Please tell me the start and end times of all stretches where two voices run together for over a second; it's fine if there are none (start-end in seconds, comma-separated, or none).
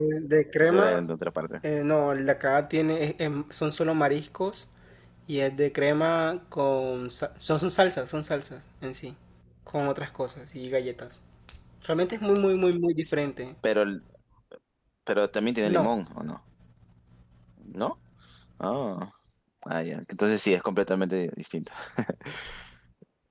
none